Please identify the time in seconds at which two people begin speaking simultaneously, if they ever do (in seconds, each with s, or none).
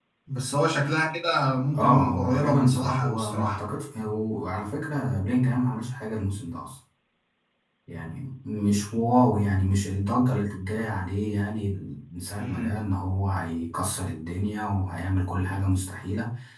1.8 s